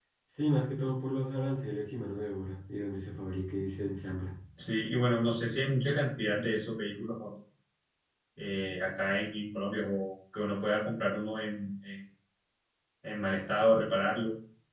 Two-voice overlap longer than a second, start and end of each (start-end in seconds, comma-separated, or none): none